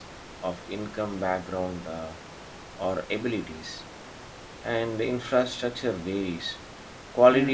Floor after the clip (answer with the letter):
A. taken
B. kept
B